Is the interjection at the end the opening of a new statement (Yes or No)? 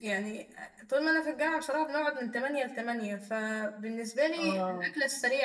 No